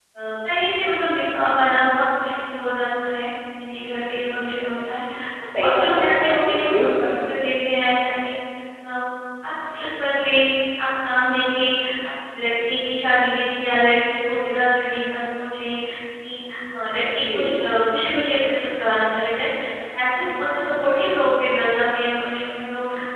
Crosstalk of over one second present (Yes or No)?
Yes